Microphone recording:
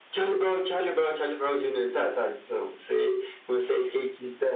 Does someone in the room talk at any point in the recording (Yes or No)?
No